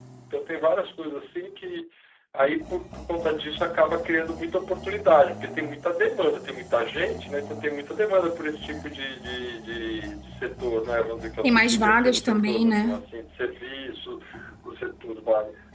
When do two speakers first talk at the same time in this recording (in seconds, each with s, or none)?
11.4 s